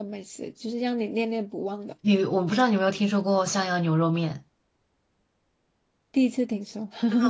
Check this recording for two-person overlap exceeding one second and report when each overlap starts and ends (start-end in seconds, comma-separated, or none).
none